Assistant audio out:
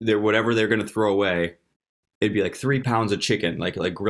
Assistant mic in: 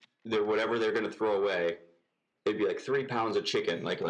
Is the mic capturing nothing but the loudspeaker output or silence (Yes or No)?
Yes